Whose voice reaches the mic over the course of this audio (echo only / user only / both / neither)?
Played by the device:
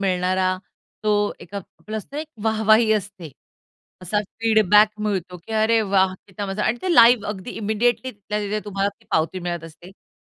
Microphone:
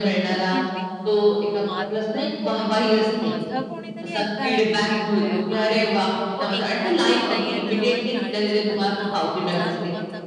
both